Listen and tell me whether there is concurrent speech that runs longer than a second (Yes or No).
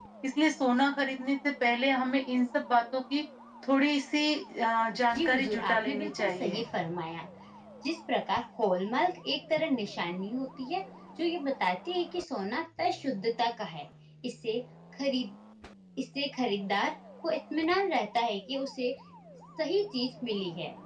Yes